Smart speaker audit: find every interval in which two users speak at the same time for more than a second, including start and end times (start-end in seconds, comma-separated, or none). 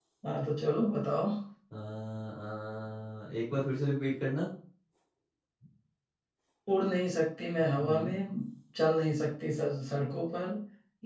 none